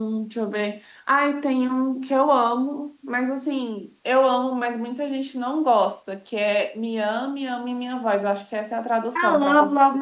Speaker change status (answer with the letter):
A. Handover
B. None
A